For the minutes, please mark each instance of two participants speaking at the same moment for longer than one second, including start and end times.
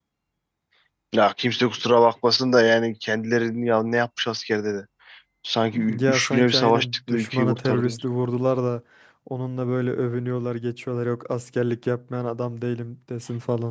6.0-8.0

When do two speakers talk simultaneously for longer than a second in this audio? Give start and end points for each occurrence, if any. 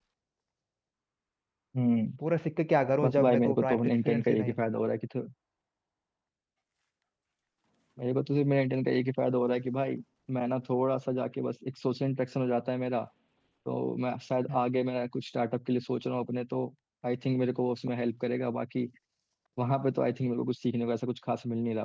3.0-4.5

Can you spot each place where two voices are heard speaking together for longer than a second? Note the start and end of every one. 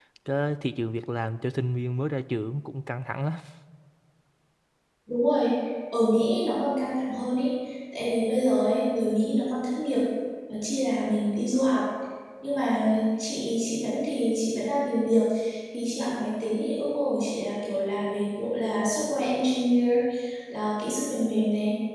none

